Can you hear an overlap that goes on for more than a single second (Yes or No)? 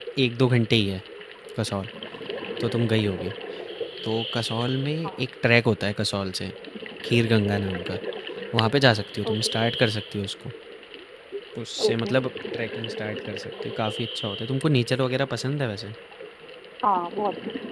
No